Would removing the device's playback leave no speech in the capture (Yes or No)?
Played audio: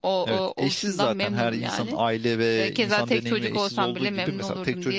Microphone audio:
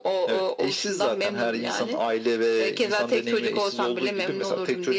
Yes